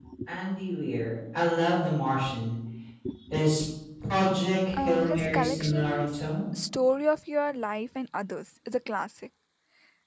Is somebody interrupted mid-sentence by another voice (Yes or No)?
Yes